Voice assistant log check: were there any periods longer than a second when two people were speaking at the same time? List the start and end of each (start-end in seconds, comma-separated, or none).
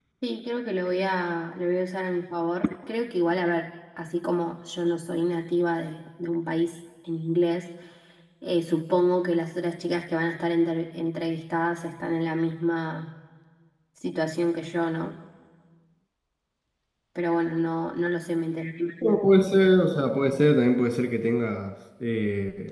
none